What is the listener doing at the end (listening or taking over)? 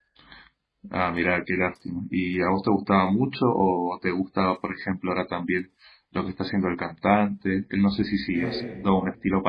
listening